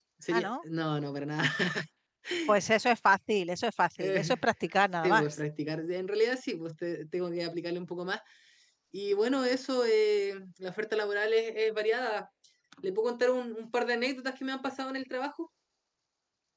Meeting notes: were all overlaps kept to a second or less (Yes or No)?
Yes